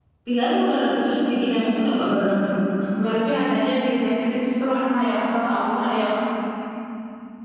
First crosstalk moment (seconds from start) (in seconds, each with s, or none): none